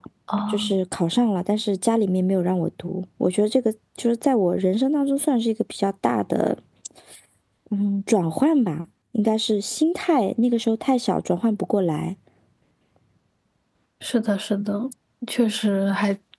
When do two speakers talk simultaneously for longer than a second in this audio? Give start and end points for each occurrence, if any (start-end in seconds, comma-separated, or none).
none